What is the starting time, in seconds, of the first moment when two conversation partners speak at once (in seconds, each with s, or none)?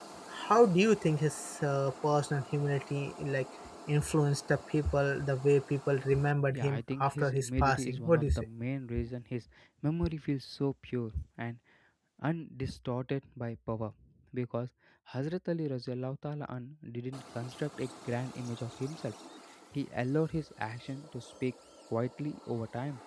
6.5 s